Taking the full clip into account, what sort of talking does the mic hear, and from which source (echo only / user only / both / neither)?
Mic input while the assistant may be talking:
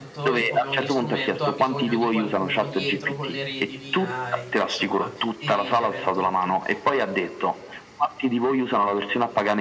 both